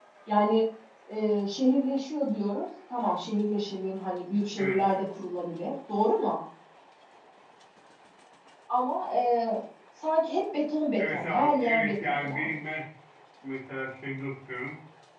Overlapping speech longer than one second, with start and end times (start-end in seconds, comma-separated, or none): 11.0-12.6